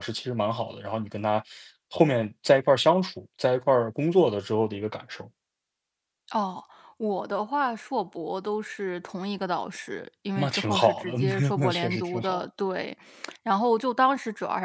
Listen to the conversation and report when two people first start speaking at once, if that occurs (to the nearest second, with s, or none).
10 s